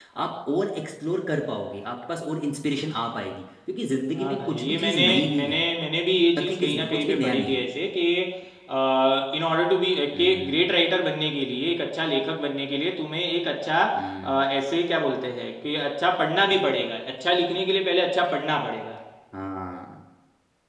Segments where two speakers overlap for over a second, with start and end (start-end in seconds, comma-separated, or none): 4.2-5.6, 6.4-7.7